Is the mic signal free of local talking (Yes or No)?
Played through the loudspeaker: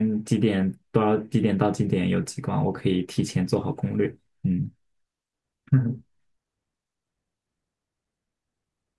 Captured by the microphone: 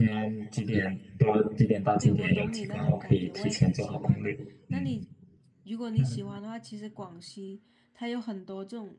No